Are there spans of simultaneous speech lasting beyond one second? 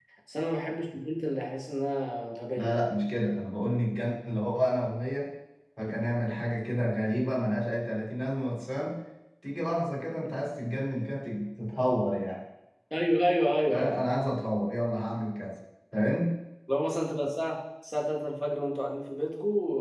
No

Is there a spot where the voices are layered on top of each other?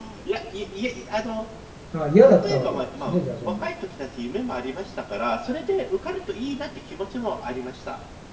Yes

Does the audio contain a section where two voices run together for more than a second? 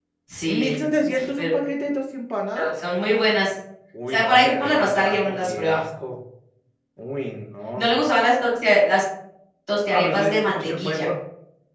Yes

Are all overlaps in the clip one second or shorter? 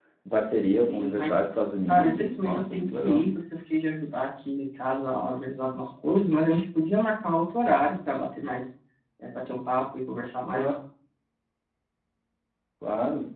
No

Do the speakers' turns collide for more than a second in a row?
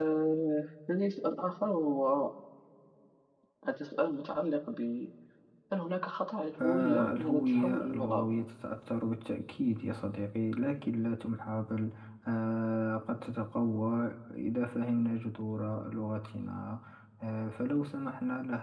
Yes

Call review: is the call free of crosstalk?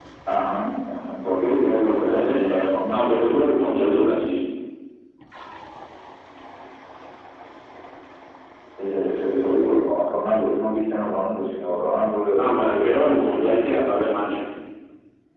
No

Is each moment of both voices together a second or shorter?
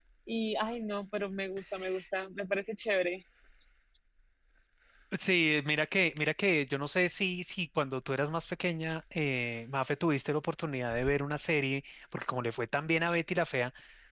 Yes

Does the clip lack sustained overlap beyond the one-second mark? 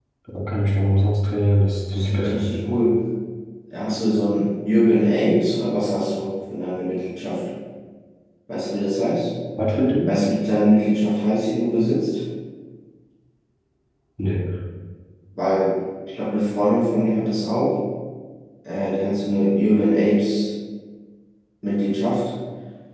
Yes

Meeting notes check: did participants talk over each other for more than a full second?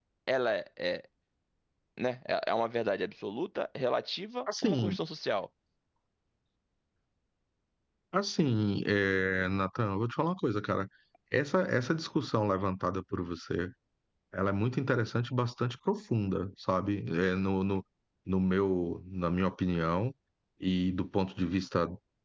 No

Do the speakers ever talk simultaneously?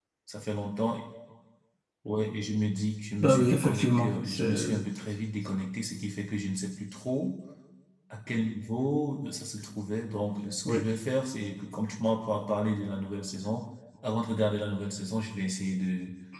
Yes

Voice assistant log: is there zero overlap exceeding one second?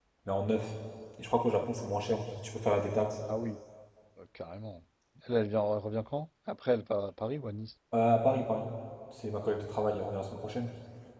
Yes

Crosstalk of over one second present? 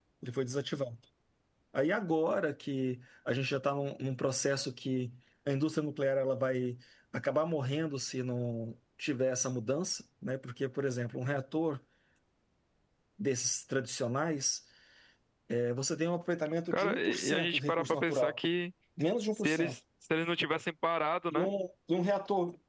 Yes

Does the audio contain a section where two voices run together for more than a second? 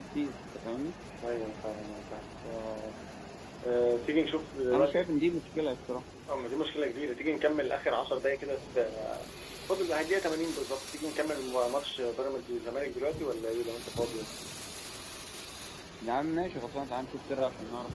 No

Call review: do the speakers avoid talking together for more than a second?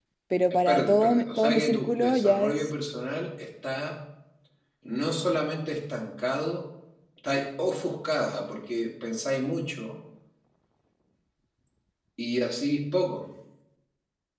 No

